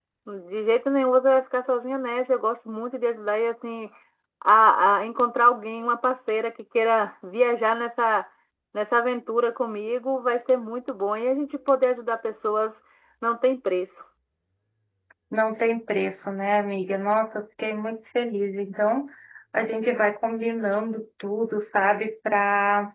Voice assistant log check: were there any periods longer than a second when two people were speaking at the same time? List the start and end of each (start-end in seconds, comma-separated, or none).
none